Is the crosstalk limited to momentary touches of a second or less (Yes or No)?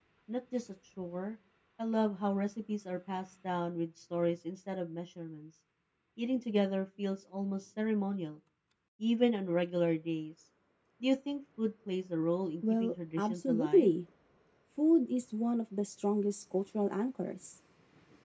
No